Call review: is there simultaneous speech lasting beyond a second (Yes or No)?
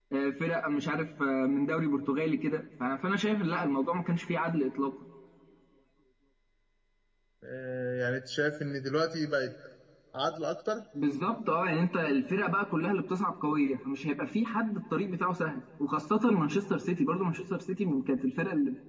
No